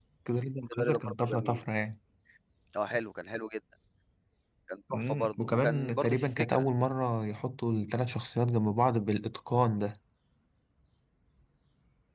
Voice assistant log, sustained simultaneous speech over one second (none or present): present